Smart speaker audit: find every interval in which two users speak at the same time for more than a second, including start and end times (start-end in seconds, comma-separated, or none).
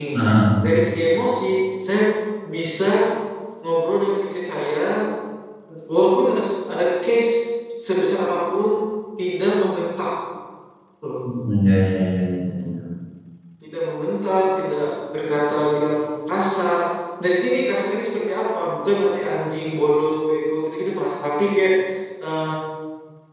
none